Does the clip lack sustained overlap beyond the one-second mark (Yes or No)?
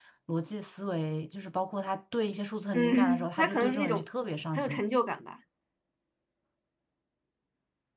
No